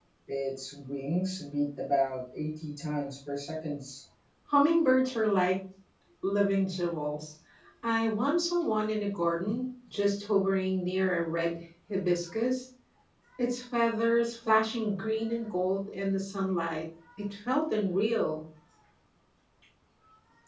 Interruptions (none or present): none